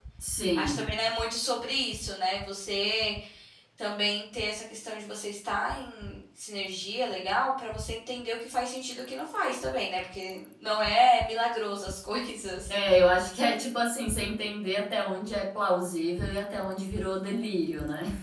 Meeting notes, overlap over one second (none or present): none